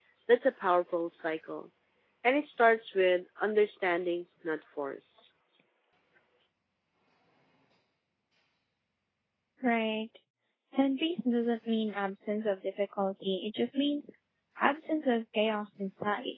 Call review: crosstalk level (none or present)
none